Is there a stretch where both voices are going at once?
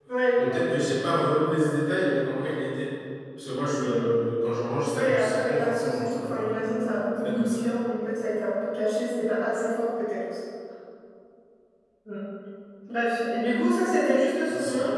Yes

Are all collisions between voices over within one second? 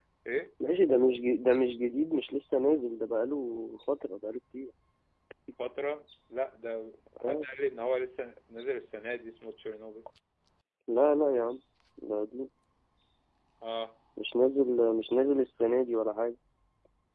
Yes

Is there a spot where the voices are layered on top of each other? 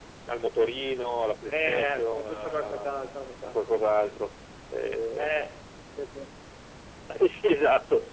Yes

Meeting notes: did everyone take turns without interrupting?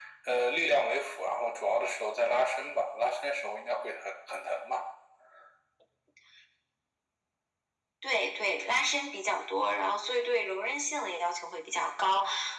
Yes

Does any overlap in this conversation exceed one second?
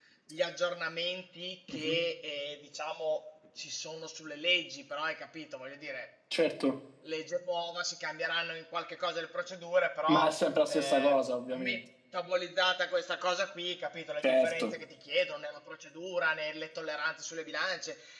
No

